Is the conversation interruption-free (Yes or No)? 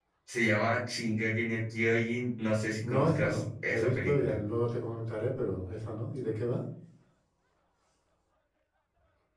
No